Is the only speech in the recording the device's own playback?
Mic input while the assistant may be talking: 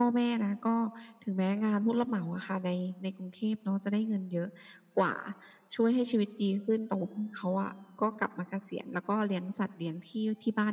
Yes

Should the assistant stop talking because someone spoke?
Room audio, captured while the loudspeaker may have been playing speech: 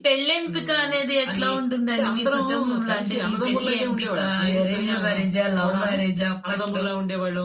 No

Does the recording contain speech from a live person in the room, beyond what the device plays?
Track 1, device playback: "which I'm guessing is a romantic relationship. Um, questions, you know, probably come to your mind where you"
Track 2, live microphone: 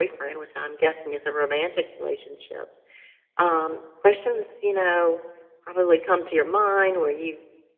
No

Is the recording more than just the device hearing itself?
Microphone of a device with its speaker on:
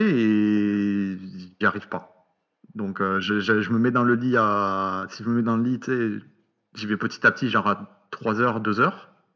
No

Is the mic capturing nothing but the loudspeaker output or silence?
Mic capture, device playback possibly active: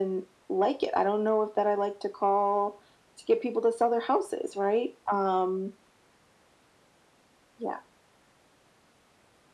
Yes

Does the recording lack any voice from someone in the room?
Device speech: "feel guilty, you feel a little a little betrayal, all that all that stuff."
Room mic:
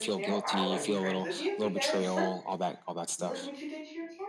No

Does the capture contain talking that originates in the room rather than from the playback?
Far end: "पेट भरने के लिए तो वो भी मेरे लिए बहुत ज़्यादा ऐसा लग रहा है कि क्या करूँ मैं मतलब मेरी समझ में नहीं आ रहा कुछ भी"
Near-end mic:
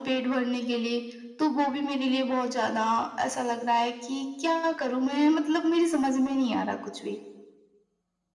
No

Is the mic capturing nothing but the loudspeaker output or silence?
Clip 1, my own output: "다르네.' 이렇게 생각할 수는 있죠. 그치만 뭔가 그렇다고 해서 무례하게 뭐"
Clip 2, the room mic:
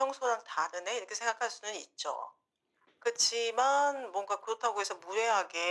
Yes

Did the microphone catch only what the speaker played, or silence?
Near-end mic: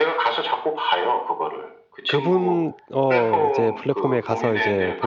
No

